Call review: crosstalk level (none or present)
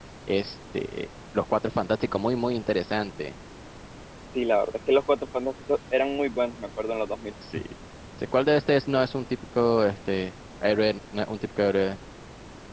none